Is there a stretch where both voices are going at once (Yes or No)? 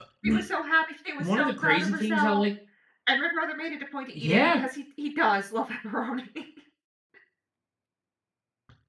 Yes